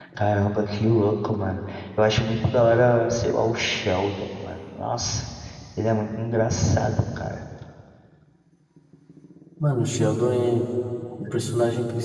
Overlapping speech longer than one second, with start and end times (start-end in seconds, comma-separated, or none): none